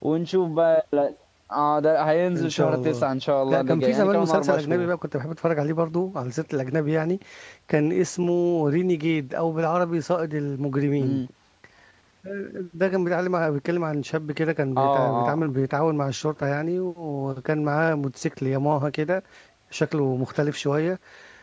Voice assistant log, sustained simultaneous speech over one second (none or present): present